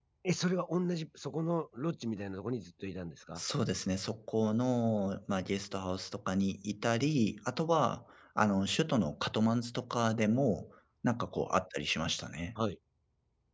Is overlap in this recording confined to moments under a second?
Yes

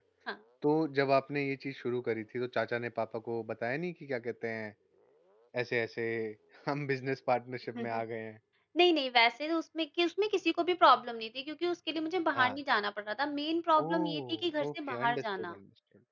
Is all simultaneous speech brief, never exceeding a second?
No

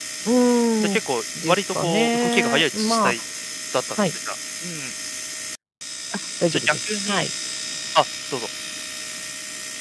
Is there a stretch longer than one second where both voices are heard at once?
Yes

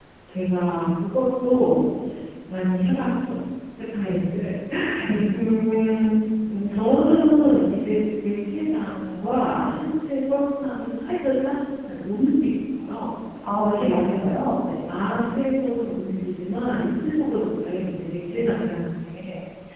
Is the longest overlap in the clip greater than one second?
No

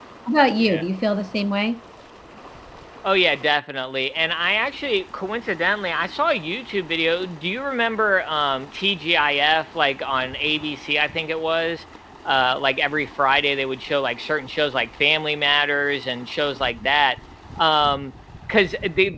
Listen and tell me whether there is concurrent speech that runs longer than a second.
No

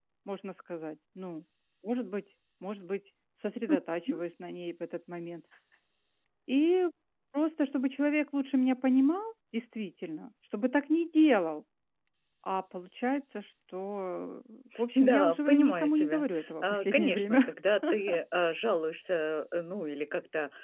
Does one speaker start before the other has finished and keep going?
Yes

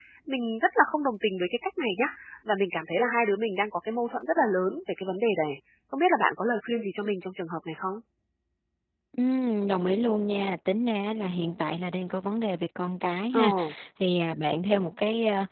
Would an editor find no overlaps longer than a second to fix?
Yes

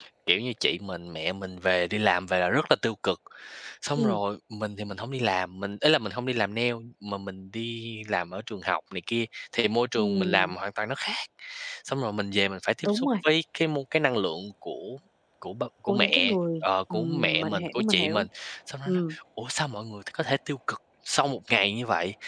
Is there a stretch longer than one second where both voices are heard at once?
Yes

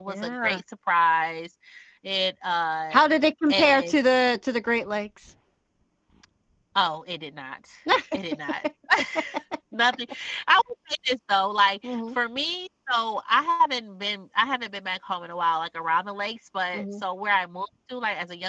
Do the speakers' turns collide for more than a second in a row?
No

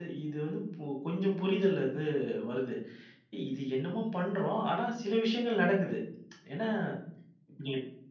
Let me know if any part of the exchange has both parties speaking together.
No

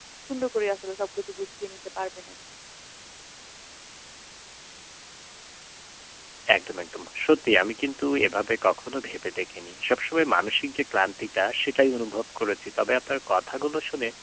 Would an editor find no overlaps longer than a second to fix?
Yes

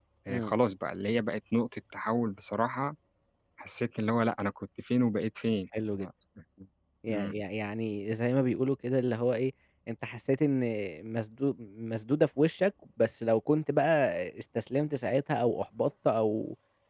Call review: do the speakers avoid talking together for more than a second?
Yes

